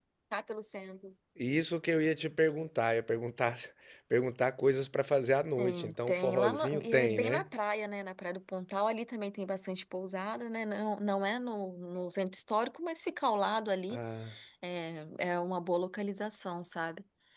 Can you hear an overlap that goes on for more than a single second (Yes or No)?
Yes